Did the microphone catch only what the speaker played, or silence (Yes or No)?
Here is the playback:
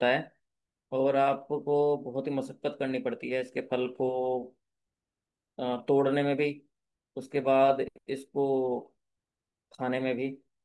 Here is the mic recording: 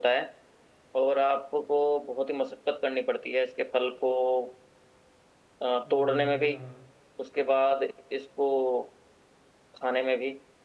No